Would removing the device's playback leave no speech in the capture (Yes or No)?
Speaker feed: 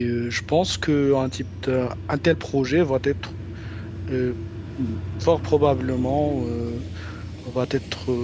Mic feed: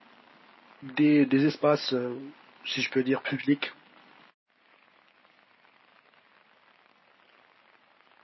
No